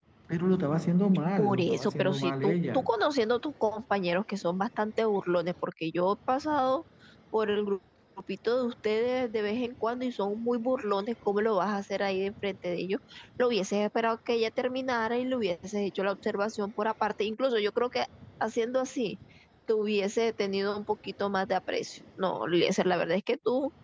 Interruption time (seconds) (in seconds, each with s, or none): 1.4 s